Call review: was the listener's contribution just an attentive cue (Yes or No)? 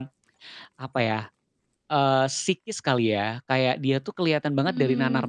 Yes